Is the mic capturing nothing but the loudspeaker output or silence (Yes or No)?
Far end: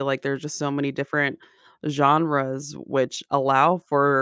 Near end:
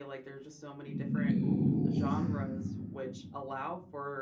No